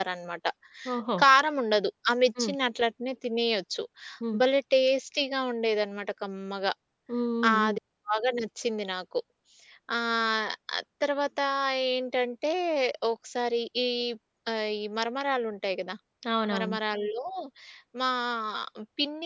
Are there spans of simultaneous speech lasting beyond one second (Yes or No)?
No